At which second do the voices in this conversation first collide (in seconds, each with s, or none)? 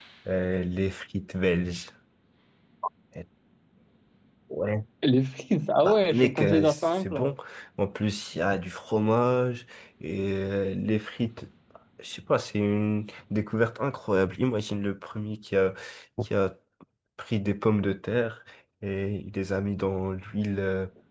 5.8 s